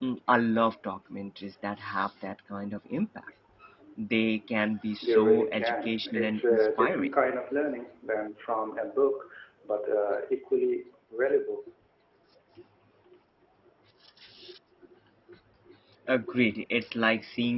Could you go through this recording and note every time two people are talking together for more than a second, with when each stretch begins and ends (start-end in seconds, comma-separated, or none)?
5.0-7.1